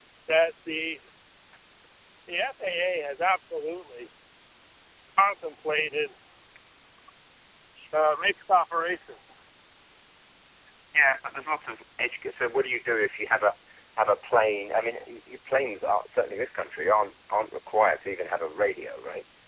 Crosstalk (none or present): none